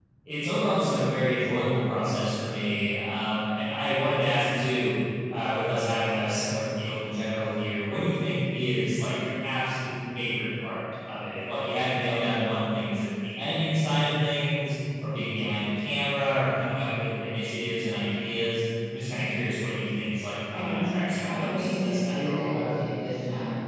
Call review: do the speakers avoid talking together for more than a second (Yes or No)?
No